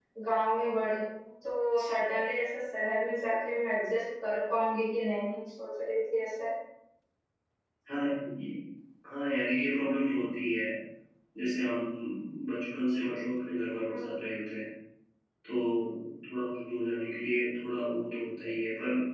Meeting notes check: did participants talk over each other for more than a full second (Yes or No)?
No